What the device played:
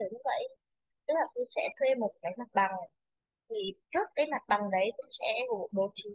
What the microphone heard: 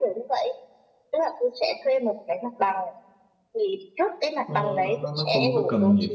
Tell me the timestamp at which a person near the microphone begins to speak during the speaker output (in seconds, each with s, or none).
4.4 s